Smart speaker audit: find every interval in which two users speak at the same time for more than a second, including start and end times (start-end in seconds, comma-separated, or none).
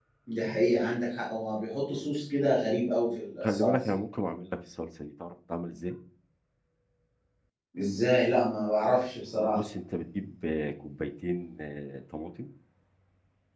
none